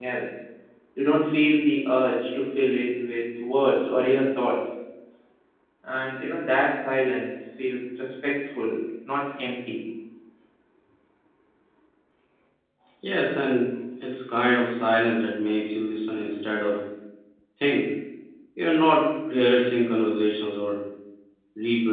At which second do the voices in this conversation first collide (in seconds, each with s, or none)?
none